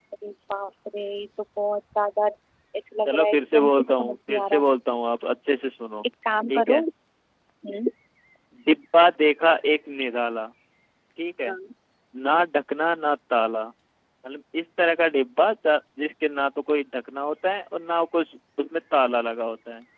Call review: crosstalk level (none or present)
present